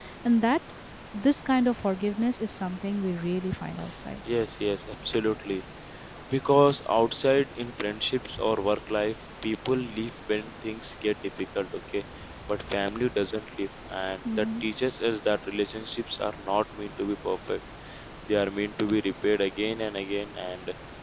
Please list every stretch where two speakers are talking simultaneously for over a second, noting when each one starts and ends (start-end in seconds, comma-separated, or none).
none